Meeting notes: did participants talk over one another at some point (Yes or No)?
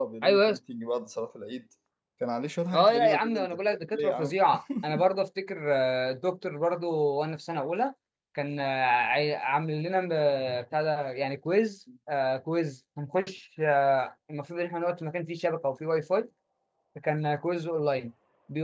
Yes